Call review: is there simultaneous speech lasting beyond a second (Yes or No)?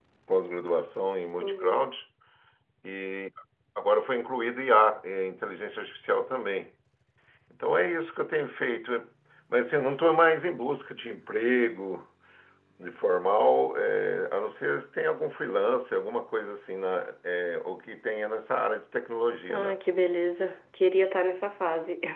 No